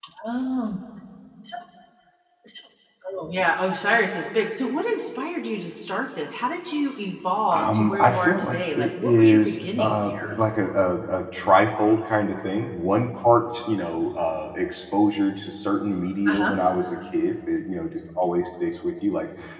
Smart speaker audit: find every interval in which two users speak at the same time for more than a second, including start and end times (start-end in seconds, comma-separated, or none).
7.5-10.3